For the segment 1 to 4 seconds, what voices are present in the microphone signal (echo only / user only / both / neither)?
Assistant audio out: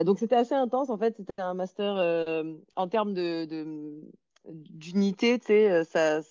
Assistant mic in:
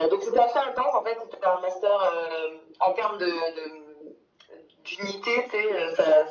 echo only